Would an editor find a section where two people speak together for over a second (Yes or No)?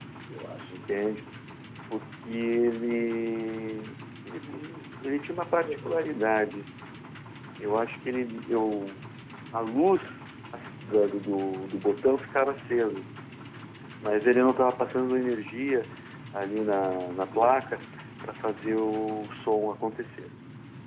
No